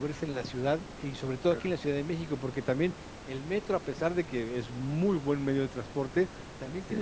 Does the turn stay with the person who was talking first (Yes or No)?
Yes